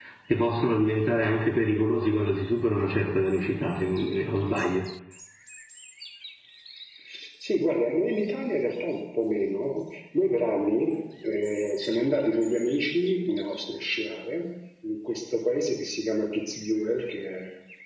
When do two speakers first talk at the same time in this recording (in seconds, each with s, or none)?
none